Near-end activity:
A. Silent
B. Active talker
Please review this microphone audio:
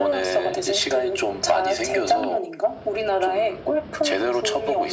A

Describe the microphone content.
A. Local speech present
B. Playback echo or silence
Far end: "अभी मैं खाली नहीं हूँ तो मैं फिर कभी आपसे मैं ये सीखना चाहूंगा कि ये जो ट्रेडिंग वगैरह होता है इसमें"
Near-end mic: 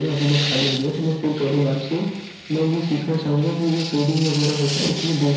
B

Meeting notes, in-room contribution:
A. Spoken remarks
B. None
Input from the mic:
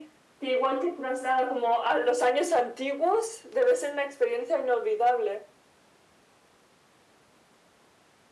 B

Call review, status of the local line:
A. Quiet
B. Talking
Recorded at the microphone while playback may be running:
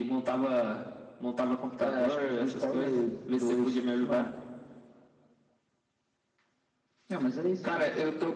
A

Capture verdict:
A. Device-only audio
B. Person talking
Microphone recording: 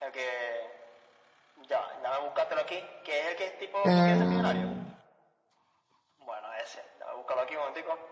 B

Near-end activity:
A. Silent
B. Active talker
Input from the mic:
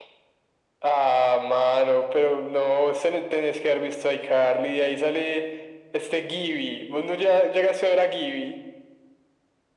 A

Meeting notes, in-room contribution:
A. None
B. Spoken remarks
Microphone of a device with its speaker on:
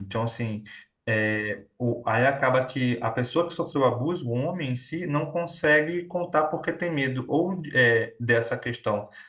B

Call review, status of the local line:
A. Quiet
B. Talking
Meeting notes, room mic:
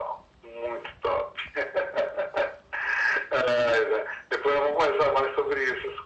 A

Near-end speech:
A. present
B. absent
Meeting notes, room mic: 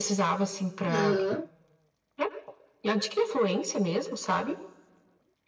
A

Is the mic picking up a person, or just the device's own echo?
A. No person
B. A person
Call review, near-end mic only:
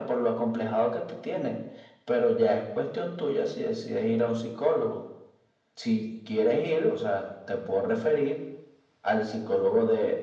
A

